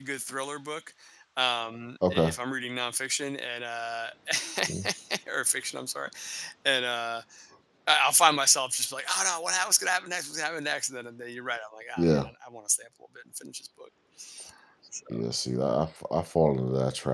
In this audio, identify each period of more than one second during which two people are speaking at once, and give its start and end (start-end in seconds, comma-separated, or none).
none